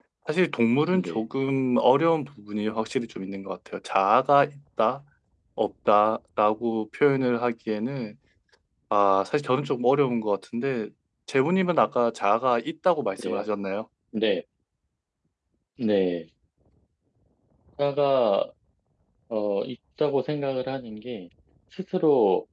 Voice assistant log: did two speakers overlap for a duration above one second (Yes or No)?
No